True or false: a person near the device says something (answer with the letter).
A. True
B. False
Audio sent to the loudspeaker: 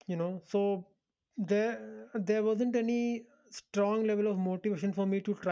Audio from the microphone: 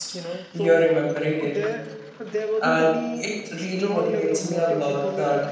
A